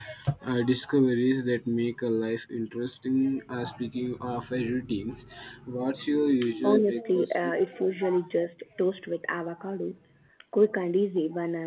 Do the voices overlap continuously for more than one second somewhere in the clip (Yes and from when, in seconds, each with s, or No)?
Yes, from 6.4 s